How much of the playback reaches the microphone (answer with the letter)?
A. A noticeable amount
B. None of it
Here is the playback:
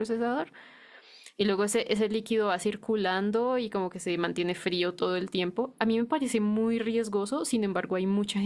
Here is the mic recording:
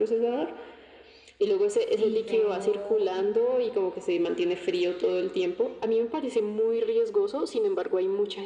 A